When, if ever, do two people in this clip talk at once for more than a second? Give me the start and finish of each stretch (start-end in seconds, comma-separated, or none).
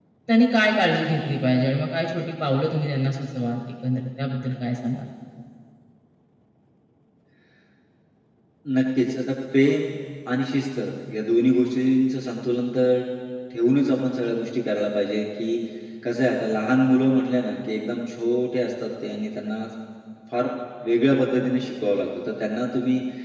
none